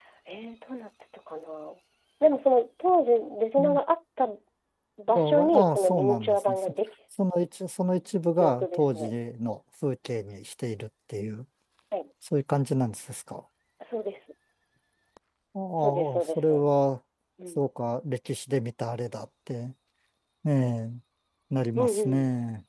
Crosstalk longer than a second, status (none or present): present